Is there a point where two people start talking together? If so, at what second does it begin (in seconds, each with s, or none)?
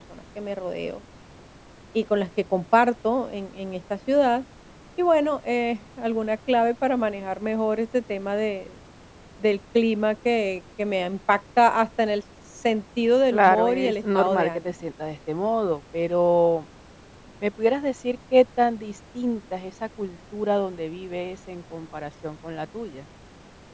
13.3 s